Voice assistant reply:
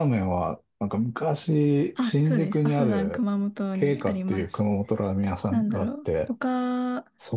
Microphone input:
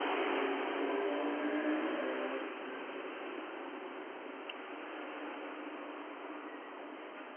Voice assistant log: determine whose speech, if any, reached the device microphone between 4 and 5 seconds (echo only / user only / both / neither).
neither